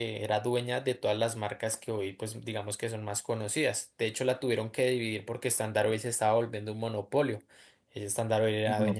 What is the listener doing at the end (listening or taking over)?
listening